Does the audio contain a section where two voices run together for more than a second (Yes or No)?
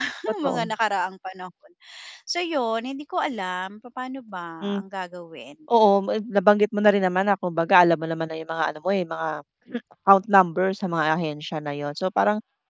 No